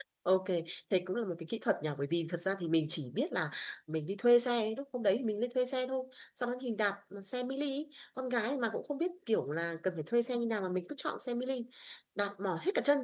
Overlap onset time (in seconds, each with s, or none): none